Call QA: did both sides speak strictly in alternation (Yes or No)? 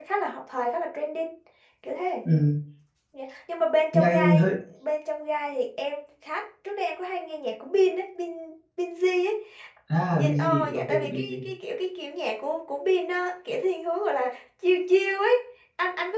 No